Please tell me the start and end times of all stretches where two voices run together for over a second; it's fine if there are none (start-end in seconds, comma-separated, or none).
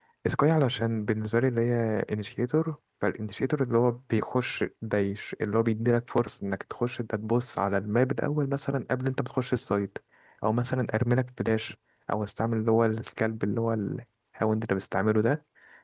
none